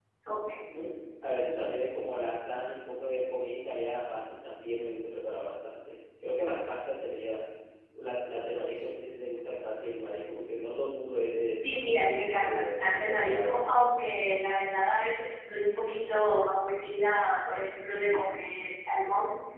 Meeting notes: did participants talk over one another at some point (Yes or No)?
Yes